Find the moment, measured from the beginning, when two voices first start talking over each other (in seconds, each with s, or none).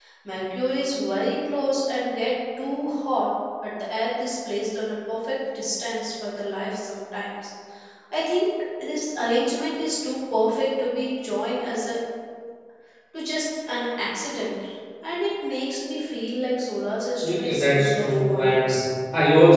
17.2 s